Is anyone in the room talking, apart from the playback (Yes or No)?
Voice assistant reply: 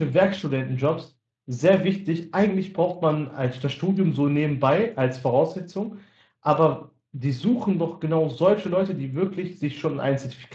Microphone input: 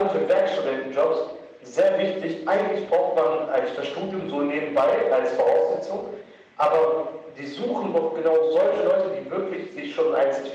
No